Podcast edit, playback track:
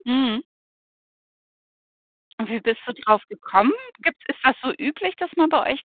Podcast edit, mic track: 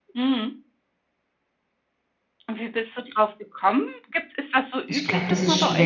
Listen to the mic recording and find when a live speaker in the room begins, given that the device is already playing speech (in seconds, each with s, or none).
4.9 s